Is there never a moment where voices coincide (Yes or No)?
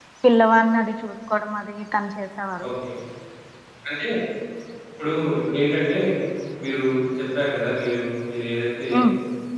Yes